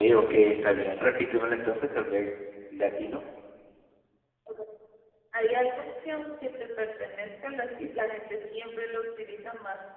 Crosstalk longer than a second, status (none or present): none